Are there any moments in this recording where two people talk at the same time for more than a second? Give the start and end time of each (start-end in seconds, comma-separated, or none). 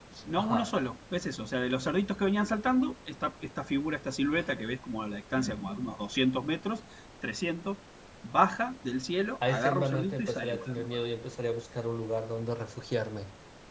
9.5-11.1